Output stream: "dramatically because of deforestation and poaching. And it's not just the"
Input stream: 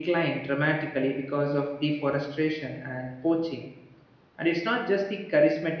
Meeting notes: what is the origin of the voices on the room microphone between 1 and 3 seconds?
echo only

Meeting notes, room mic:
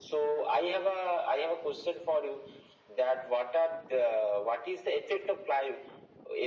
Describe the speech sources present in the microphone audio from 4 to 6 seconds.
echo only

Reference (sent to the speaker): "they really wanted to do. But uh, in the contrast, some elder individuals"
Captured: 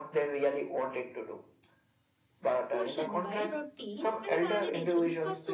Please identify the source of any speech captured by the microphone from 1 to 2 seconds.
echo only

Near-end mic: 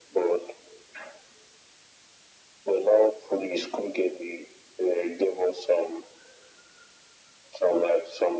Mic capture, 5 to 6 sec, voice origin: echo only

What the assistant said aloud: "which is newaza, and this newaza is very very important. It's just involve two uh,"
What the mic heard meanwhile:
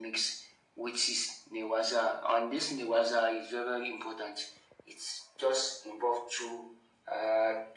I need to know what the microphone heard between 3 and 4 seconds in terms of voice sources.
echo only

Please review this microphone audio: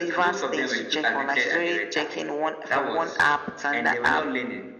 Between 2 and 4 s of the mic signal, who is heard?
echo only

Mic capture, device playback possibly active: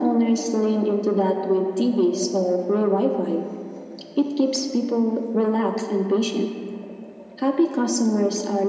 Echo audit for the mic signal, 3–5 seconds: echo only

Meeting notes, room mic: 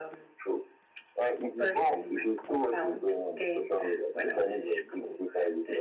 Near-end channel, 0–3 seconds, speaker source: echo only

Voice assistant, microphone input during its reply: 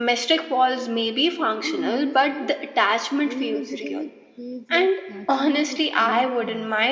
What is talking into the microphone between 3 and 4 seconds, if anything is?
both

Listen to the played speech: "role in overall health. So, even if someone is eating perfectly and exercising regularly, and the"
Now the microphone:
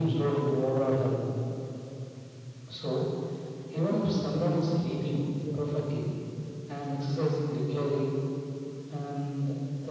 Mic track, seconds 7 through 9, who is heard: echo only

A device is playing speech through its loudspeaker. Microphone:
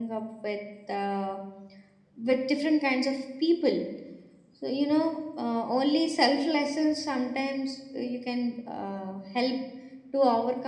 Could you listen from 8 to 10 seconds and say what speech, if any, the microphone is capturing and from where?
echo only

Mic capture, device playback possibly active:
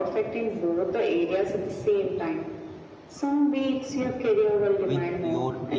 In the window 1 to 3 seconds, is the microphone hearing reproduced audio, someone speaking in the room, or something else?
echo only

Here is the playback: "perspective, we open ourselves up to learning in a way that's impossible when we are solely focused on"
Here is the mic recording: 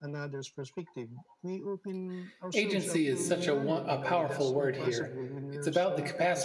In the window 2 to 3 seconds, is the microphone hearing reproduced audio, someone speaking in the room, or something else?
both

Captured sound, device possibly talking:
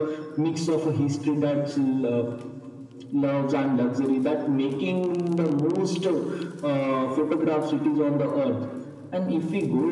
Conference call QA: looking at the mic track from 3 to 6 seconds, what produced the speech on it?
echo only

